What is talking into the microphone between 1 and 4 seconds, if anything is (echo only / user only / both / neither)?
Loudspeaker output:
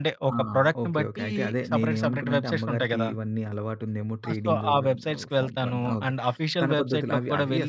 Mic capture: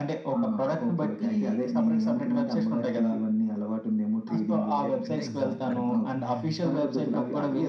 echo only